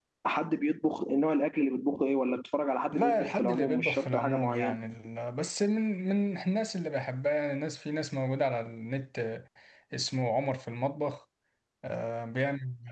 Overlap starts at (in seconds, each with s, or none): 2.9 s